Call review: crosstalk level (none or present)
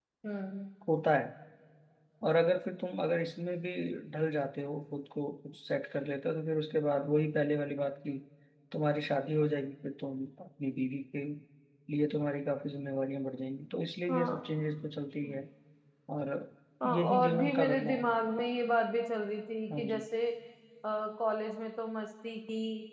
present